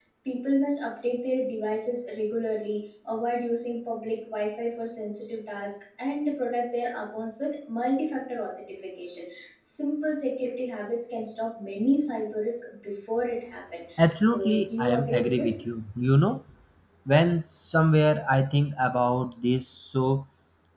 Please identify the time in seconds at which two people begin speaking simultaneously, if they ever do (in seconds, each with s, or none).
14.3 s